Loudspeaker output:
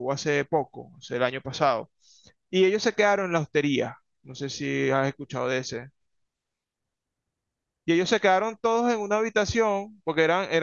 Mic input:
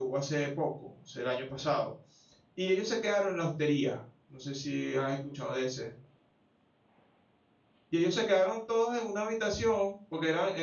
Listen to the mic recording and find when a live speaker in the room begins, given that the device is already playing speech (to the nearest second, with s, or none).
none